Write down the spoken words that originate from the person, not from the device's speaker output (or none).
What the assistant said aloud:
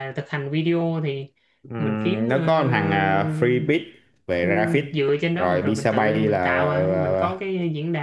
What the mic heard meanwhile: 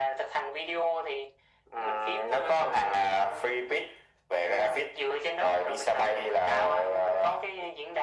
none